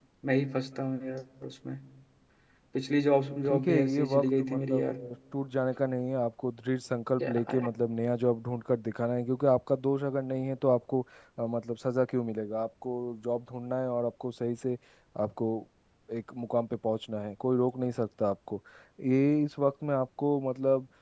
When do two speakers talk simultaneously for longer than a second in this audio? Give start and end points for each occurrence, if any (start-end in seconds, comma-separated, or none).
3.5-5.0